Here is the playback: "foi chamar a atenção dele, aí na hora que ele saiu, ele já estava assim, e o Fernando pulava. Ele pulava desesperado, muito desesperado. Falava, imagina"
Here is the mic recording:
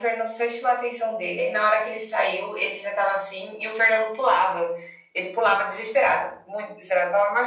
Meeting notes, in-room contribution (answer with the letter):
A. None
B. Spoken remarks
A